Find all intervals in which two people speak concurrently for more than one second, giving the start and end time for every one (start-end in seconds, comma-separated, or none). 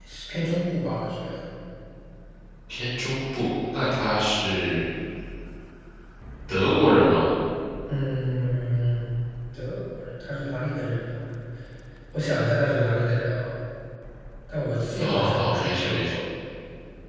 15.0-16.2